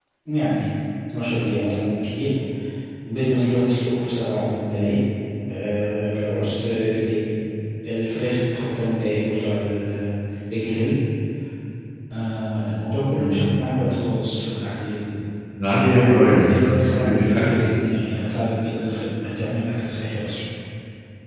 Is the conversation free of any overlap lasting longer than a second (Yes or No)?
No